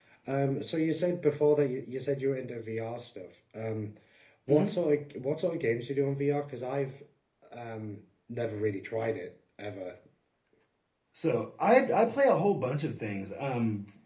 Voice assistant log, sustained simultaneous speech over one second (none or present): none